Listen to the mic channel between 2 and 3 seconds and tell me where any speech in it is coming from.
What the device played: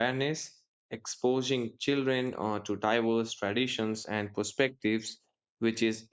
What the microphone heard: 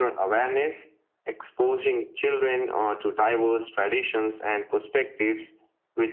echo only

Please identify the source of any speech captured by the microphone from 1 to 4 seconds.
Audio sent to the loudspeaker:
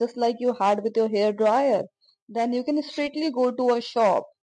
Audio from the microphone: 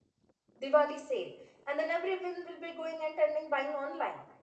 user only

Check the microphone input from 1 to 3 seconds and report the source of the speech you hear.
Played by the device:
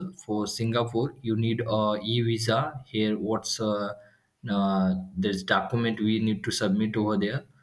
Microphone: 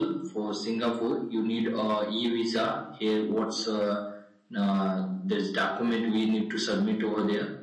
echo only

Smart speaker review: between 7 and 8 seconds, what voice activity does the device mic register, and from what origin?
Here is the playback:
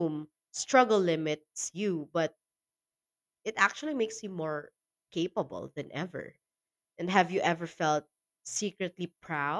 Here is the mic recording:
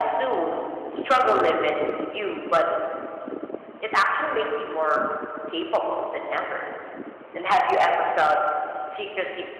echo only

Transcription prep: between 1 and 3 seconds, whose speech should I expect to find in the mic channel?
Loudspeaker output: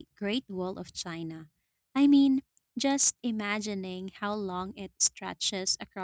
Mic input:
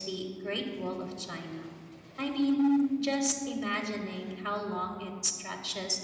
echo only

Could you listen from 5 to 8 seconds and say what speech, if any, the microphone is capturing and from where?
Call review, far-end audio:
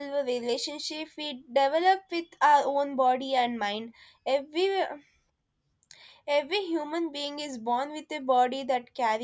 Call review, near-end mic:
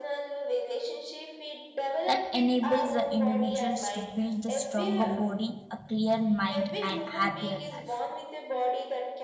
both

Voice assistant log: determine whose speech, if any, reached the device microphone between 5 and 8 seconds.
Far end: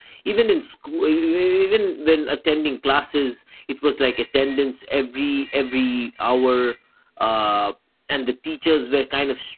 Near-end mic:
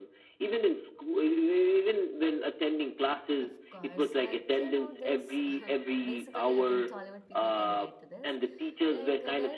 both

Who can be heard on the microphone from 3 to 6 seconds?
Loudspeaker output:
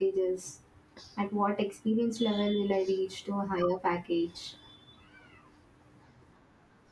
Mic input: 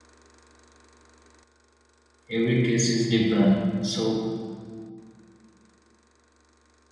user only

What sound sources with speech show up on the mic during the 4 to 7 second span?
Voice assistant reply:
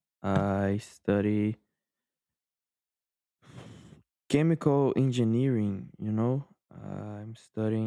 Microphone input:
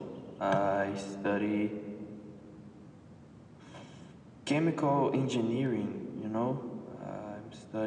echo only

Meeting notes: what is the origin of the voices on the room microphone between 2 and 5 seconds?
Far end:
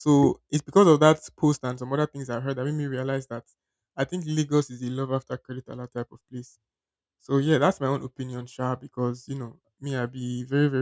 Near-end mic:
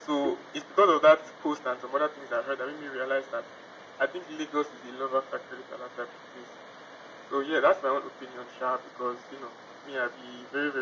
echo only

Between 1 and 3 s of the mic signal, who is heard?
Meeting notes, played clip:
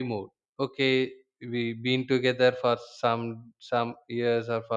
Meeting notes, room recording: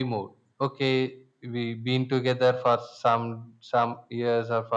echo only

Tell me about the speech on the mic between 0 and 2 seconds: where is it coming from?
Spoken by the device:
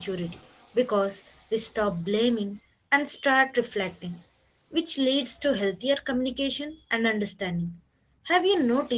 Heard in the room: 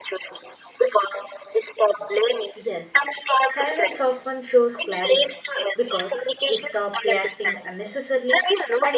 echo only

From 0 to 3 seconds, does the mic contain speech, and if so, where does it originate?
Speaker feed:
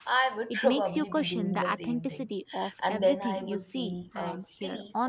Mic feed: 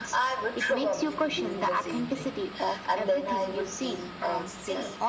echo only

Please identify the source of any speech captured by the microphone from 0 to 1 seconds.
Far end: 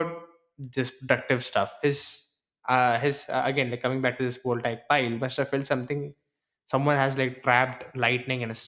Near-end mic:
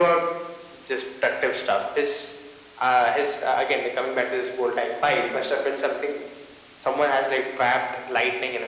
echo only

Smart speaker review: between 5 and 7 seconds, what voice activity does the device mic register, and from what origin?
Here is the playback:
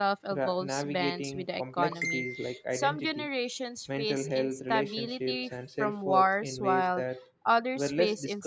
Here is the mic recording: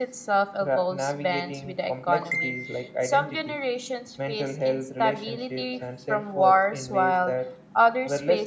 echo only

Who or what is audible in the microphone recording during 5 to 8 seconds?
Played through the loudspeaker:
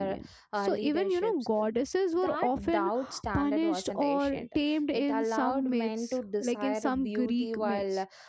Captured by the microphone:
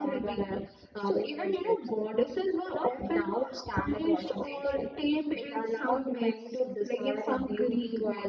echo only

